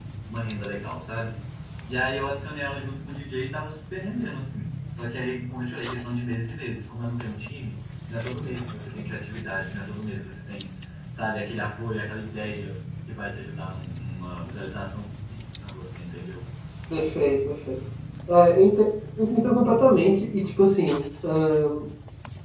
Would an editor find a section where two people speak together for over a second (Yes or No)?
No